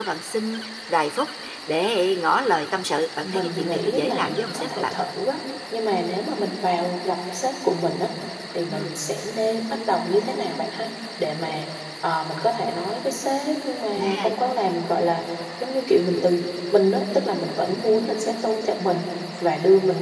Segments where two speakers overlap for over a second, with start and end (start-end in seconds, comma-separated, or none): 3.2-5.1